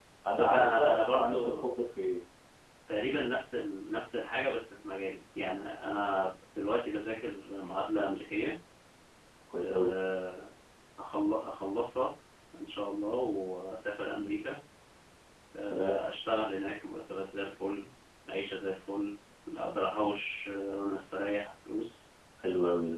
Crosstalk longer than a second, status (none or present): present